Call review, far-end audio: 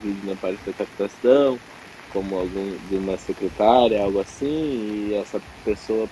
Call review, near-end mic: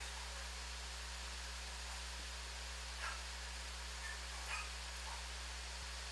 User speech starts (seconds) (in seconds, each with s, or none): none